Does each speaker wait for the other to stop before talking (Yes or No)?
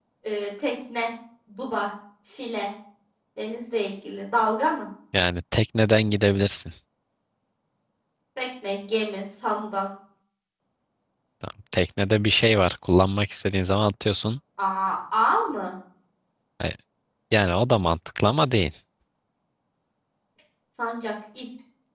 Yes